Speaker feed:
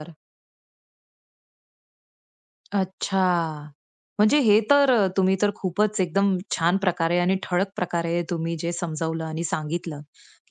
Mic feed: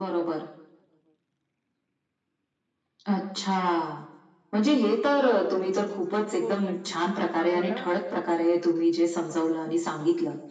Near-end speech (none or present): present